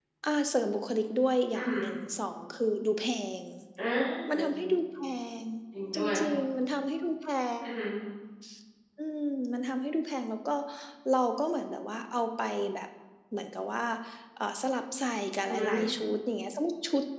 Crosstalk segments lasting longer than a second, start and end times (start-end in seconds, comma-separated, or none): none